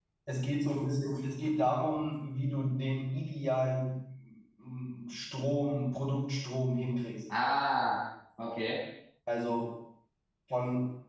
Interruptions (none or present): none